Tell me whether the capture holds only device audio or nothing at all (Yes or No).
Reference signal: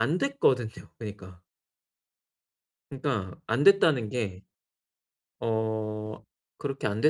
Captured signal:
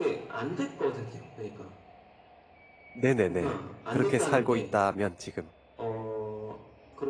No